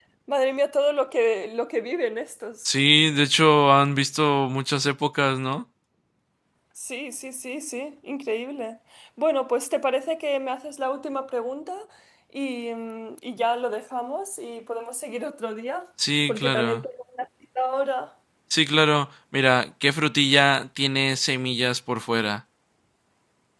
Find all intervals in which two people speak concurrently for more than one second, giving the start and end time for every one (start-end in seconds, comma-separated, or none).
none